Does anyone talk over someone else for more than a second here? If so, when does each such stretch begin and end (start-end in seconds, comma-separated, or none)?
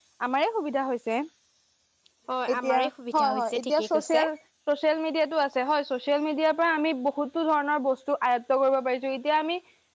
2.5-4.2